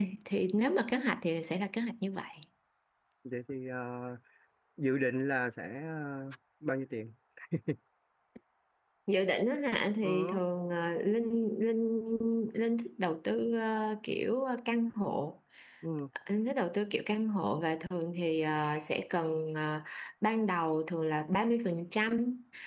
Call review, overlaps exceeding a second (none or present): none